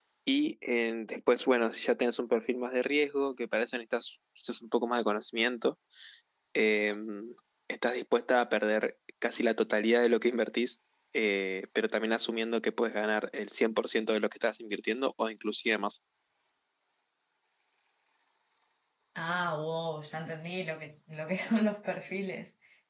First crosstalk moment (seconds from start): none

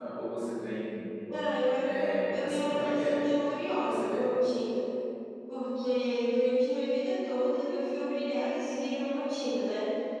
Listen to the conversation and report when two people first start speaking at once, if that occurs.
1.8 s

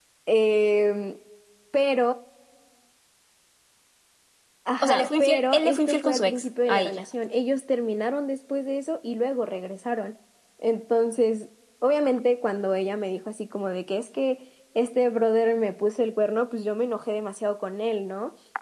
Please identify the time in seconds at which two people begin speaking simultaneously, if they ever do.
4.8 s

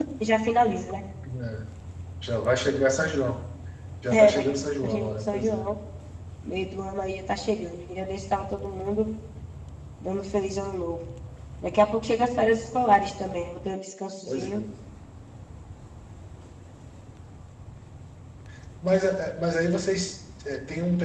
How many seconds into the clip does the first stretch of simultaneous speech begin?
4.1 s

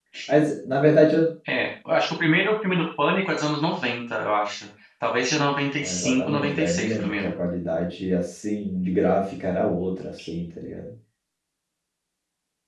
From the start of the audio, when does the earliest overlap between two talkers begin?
5.8 s

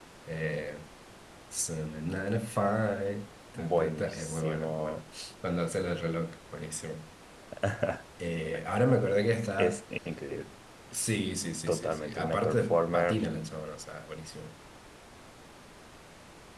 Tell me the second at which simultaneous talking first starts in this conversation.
3.5 s

